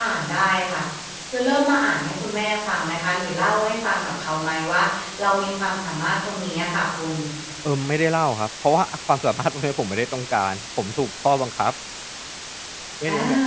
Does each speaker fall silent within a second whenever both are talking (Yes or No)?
Yes